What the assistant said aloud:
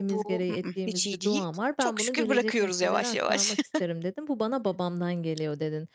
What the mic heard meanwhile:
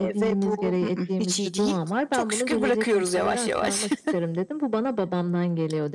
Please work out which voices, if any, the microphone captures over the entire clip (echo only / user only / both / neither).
echo only